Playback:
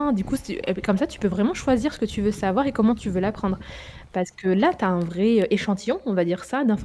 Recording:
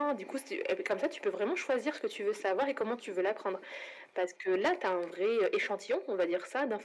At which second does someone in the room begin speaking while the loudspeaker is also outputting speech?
none

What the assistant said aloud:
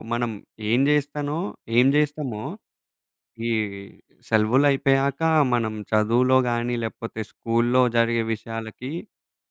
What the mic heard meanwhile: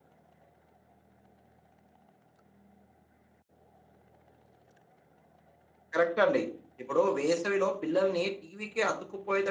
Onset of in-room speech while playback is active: 6 s

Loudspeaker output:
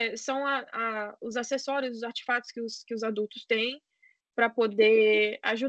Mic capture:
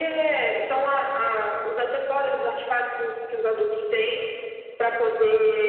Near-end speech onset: none

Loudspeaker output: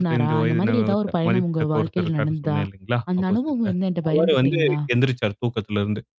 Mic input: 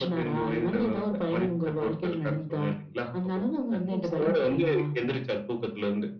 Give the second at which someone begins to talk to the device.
4 s

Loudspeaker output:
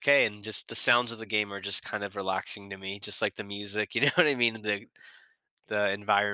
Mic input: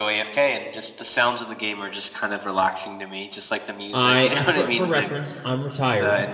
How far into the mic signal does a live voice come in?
4 s

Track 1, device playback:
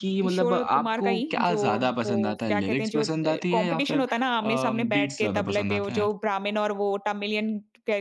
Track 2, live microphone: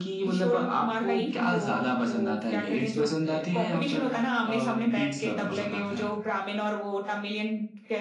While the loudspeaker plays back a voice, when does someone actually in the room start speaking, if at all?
none

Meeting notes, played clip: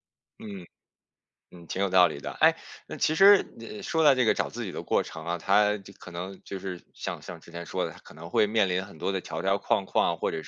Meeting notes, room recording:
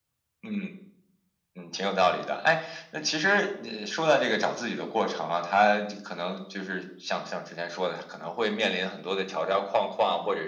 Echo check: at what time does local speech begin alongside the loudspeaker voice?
none

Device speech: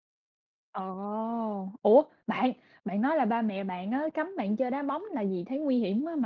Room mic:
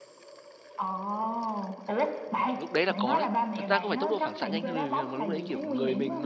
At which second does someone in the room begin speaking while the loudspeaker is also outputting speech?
3 s

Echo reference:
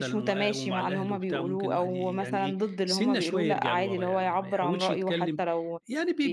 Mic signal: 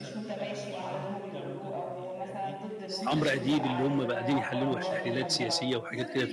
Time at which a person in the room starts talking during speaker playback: 3 s

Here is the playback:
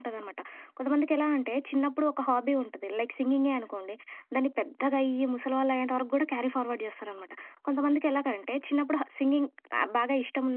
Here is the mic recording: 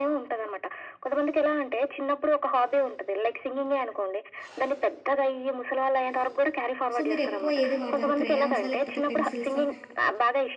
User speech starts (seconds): 7 s

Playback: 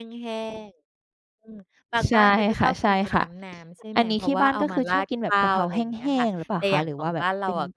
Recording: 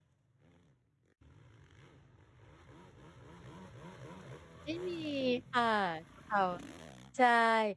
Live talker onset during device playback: 5 s

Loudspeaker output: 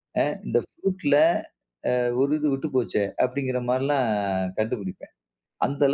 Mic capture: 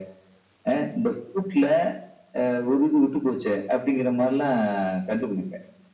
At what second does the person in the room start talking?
none

